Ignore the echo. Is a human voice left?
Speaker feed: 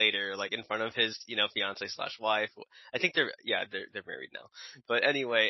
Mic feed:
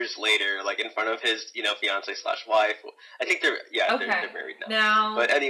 Yes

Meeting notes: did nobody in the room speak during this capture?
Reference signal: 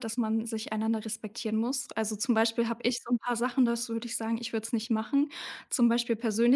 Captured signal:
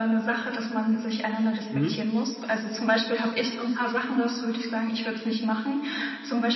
No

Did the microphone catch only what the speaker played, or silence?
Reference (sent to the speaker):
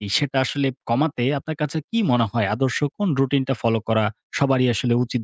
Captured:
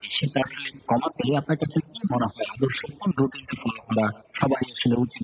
Yes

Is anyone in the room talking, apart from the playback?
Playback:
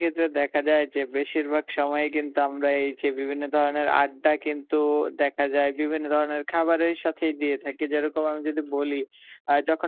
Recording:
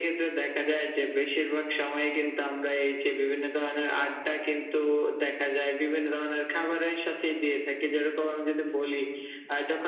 No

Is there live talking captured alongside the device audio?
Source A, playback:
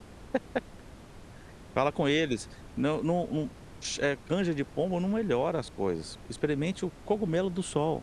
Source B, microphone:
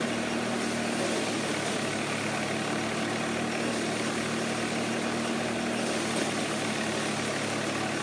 No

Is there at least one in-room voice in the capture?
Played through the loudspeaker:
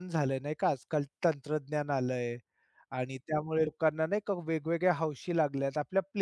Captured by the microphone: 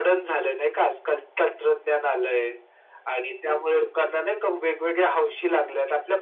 No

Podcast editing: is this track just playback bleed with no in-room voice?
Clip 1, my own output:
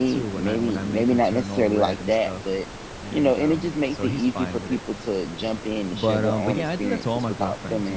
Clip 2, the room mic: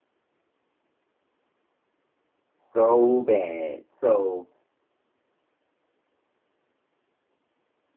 No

